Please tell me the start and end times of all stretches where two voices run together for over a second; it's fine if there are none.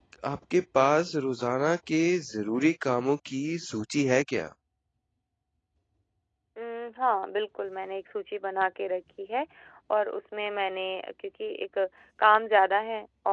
none

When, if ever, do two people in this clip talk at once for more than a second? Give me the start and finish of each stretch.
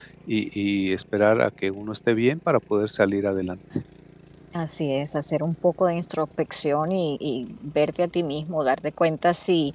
none

